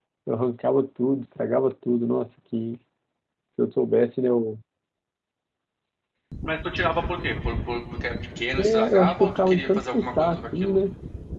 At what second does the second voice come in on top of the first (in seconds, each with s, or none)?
8.6 s